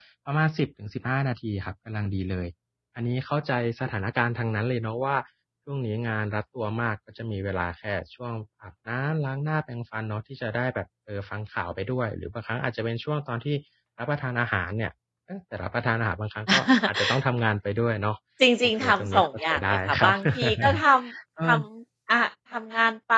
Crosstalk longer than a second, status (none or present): present